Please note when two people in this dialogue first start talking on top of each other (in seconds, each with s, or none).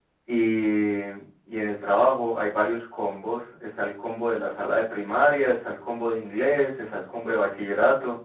none